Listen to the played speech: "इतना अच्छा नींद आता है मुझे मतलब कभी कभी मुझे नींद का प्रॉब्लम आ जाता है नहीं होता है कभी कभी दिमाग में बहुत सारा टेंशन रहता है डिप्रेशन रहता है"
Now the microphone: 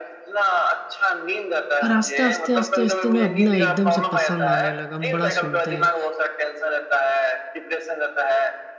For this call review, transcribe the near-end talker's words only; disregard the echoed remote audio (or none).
और आस्ते आस्ते आस्ते आस्ते ना अपना एकदम से पसंद आने लगा हम बड़ा सुनते हैं